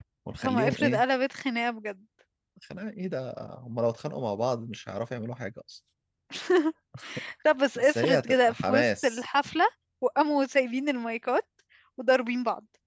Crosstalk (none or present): present